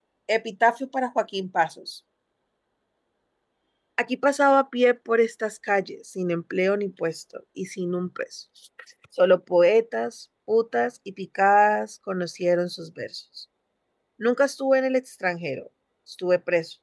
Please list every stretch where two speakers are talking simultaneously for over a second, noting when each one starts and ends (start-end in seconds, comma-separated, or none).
none